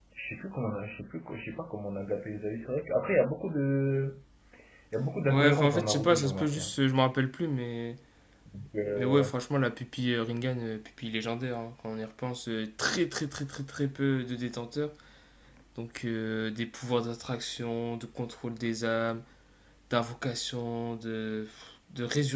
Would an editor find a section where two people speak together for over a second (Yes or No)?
Yes